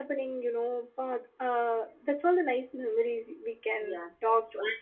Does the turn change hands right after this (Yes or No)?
Yes